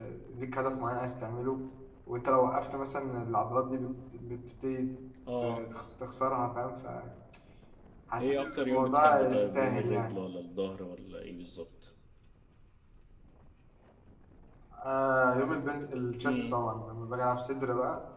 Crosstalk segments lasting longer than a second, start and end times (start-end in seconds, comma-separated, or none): 8.2-10.2